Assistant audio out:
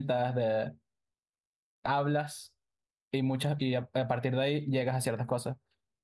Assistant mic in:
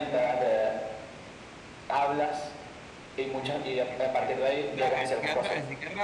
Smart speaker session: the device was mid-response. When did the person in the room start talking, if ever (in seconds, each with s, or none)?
3.4 s